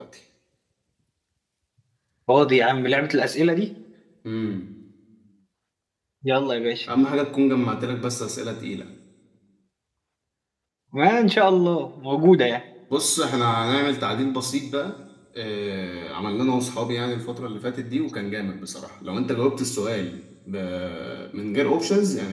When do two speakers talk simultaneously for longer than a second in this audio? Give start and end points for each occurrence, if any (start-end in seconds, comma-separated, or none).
none